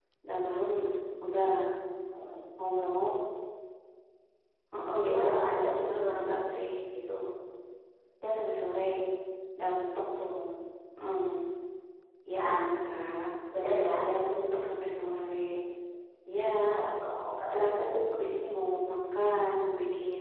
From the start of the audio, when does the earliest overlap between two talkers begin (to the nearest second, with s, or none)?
5 s